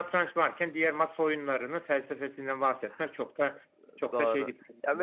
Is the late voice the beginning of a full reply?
Yes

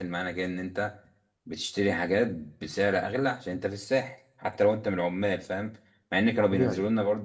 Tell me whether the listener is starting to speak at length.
No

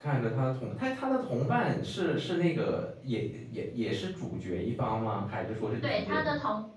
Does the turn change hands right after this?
Yes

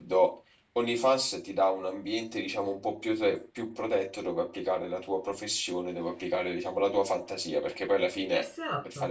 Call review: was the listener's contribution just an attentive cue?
Yes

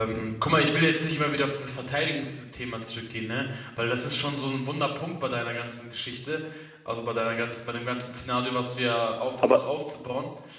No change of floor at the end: Yes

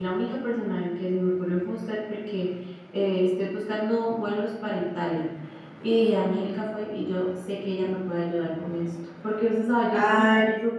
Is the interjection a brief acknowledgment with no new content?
Yes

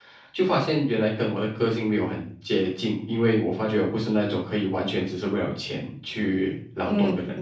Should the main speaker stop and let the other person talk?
Yes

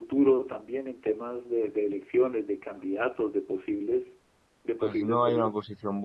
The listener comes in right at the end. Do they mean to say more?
Yes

